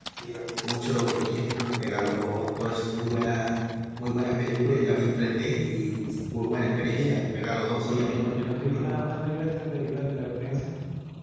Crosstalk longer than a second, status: none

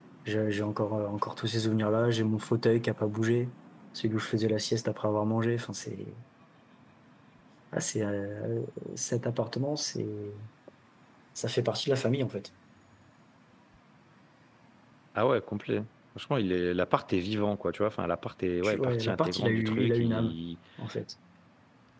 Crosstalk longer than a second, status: present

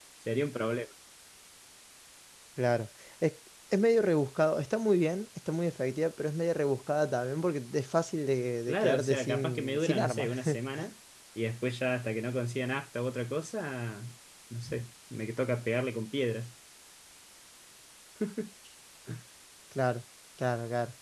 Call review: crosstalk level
present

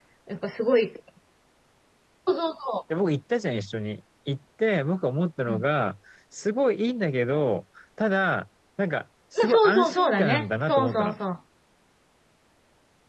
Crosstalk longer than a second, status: present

